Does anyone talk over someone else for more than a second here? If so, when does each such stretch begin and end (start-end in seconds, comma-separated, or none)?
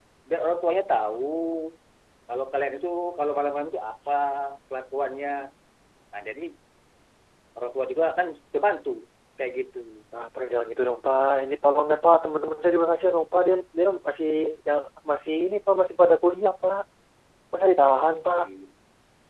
none